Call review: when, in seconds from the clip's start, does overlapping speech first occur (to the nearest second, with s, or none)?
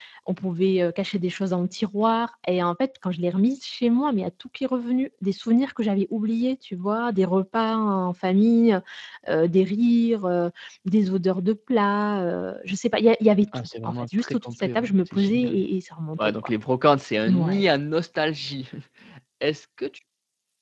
14 s